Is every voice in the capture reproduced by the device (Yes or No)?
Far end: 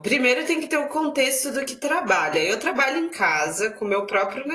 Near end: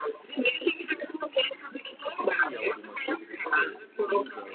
No